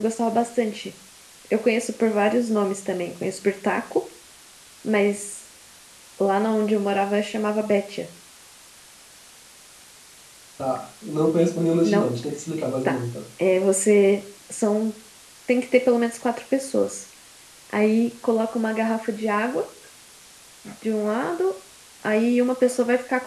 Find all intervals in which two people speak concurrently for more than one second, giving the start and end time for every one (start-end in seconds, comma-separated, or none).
none